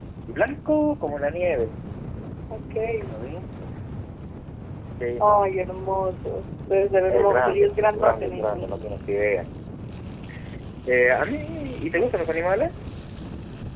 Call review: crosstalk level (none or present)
present